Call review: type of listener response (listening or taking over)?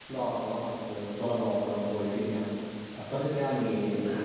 listening